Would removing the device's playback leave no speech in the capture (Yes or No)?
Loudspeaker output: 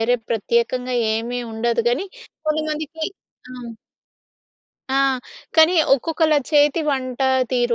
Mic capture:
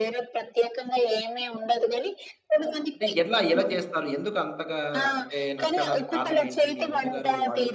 No